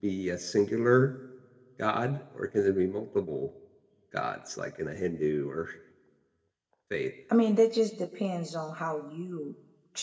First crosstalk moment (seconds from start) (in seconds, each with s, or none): none